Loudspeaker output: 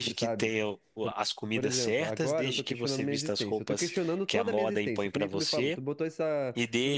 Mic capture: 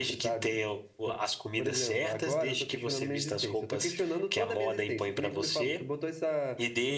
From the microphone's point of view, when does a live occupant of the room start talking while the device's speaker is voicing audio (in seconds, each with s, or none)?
none